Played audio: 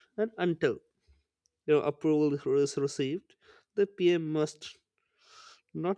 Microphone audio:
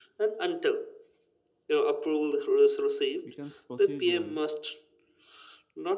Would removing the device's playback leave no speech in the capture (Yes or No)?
No